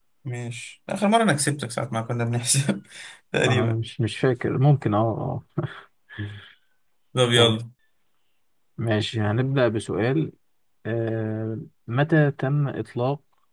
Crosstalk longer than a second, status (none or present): none